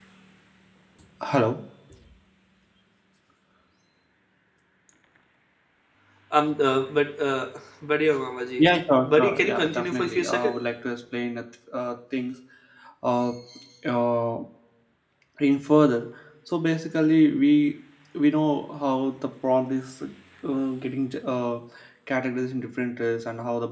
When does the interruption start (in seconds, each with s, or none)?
9.0 s